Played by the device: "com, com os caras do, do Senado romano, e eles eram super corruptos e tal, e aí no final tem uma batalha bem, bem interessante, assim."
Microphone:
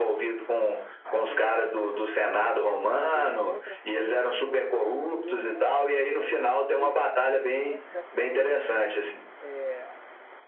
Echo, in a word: present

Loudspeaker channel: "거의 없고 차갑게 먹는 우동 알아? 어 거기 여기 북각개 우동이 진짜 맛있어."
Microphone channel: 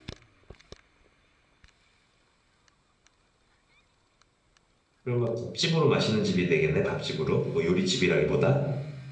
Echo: none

